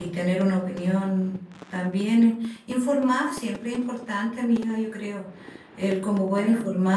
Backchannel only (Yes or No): Yes